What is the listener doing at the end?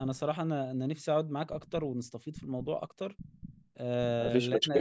listening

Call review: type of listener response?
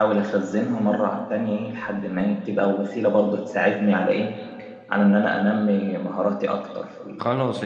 taking over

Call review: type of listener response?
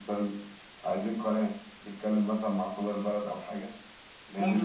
taking over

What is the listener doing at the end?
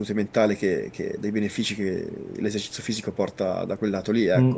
taking over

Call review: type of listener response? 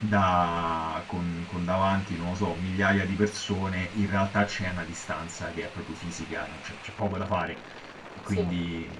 listening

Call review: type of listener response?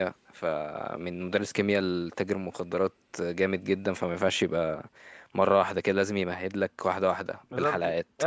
taking over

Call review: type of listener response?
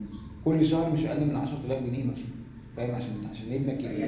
taking over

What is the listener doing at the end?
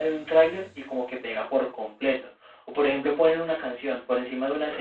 listening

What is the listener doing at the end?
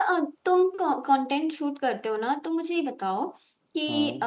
listening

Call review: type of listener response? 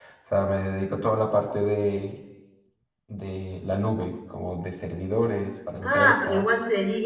taking over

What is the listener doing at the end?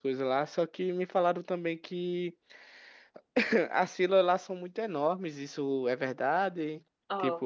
taking over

